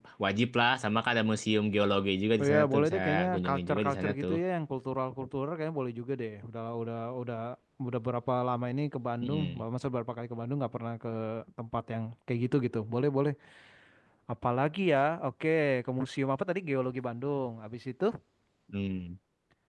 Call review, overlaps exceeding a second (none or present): present